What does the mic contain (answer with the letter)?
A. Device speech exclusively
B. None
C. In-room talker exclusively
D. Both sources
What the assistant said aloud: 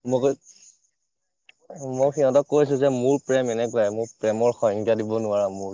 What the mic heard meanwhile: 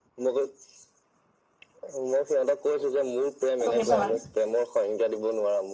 D